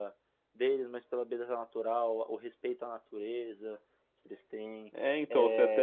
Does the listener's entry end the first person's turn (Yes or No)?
Yes